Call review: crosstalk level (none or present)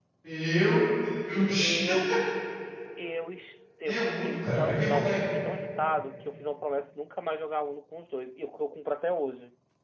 present